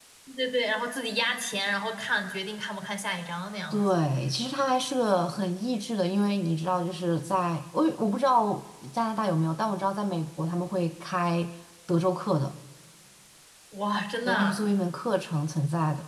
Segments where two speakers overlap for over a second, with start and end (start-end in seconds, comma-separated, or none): none